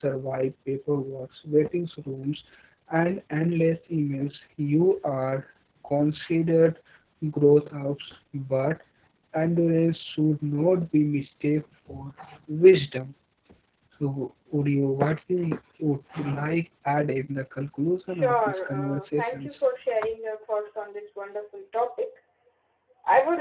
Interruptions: present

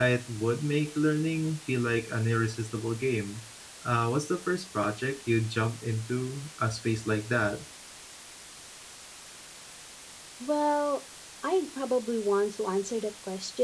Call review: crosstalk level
none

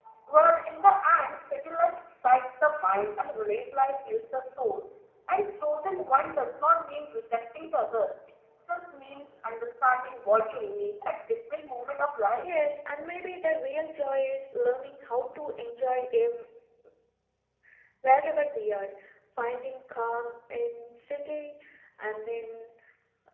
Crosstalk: none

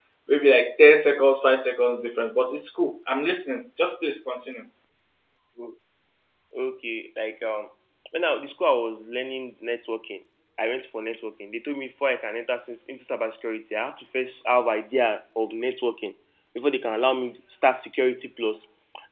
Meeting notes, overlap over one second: none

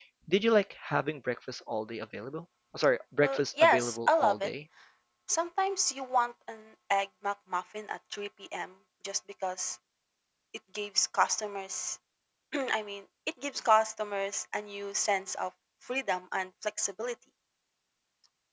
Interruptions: present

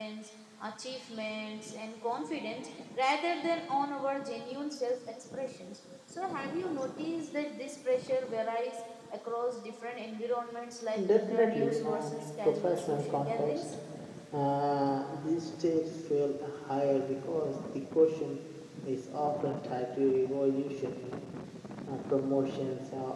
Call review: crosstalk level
present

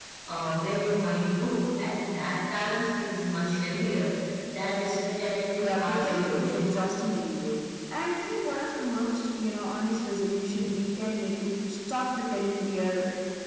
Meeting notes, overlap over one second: present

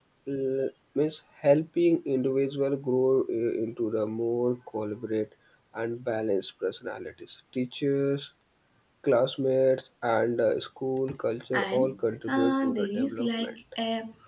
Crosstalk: present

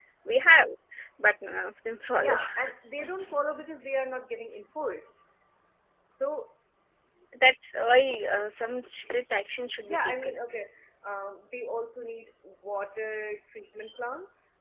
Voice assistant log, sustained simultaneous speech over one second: none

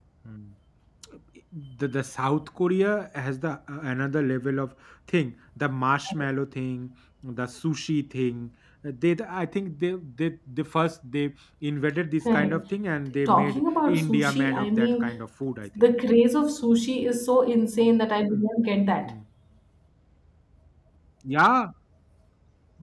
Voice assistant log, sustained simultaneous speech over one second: present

